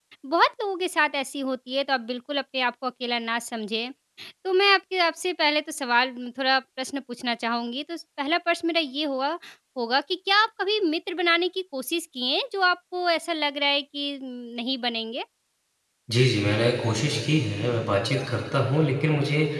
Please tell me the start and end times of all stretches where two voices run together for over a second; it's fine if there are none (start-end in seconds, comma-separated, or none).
none